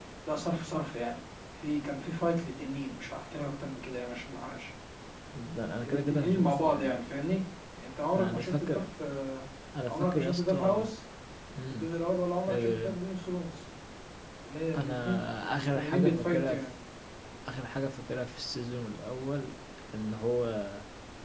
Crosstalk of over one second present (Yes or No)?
Yes